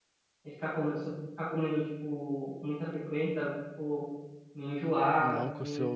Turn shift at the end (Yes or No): Yes